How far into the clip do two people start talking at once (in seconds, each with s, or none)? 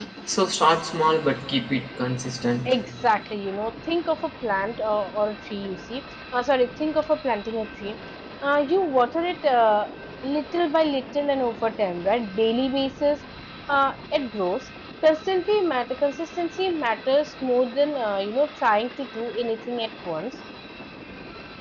none